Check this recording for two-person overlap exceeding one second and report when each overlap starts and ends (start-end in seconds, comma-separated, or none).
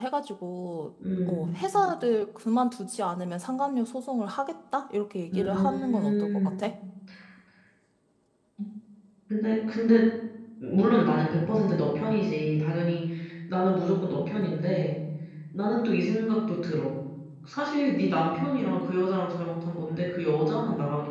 5.3-6.6